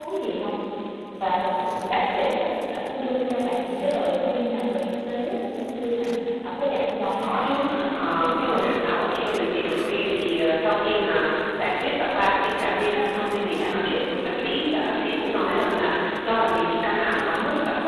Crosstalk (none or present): present